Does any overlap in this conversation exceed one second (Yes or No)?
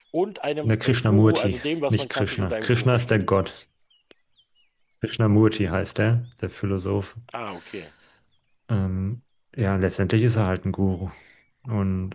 Yes